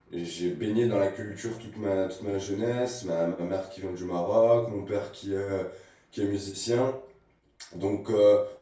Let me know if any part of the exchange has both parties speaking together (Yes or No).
No